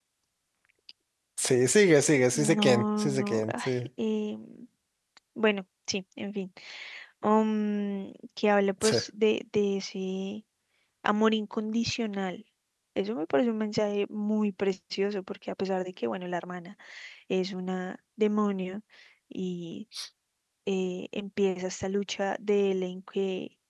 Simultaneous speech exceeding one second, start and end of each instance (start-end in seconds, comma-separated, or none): 2.4-3.7